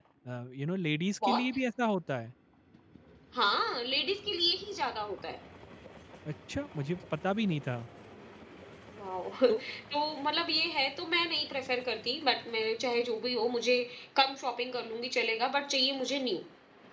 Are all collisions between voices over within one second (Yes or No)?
Yes